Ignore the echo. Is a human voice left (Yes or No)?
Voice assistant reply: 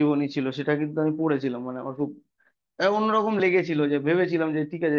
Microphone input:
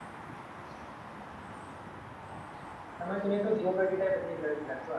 Yes